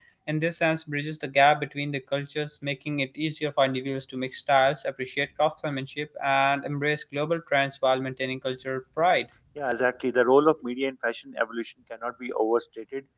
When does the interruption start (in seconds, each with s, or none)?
none